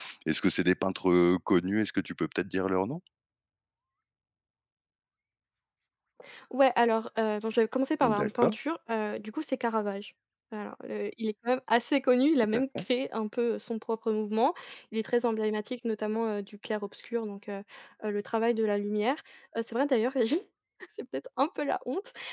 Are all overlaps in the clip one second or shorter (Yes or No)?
Yes